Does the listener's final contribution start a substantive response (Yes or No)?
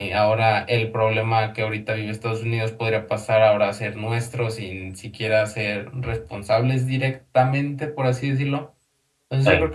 No